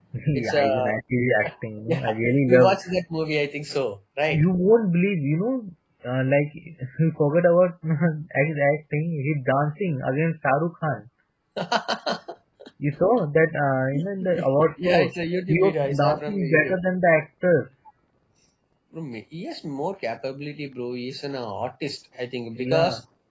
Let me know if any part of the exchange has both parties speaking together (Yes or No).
Yes